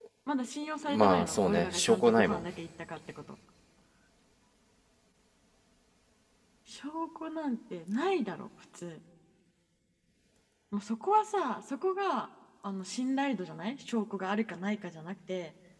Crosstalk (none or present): present